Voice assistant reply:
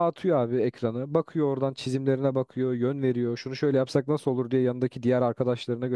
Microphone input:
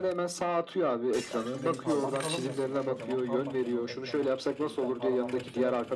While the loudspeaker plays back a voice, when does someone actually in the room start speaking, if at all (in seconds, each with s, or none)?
1.3 s